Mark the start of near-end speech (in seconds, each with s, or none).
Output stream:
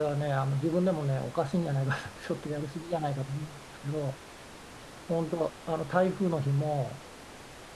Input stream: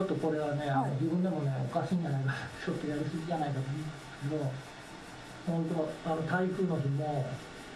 0.7 s